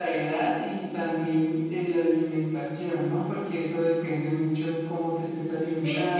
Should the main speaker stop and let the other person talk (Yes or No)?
Yes